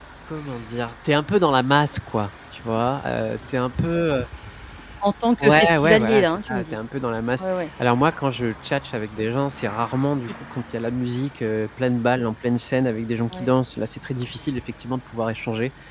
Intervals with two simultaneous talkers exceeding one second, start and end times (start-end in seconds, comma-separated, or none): 5.4-6.8